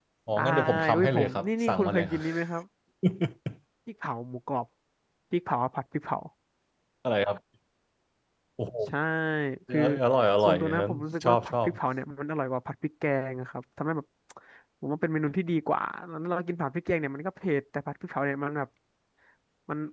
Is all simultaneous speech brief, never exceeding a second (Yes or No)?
No